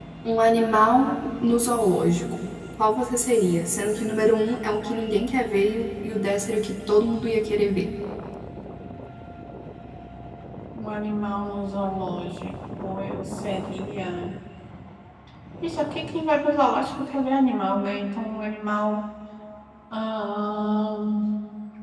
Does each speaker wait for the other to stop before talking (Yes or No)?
Yes